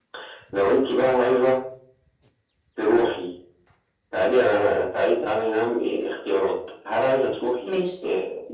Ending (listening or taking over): listening